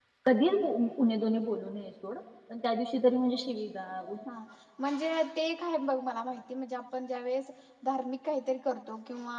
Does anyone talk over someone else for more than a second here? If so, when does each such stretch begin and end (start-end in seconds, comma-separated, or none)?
none